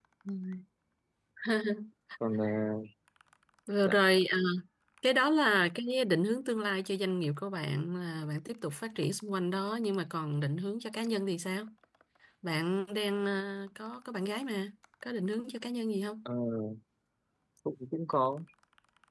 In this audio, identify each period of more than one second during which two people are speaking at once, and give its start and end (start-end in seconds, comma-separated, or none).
none